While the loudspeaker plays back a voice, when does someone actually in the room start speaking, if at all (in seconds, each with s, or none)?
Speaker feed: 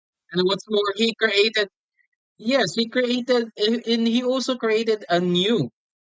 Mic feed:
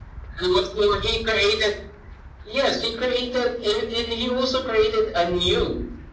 none